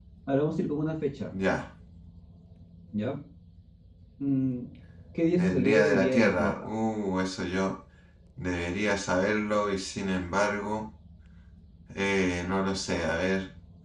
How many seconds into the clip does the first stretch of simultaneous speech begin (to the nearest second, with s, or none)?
5 s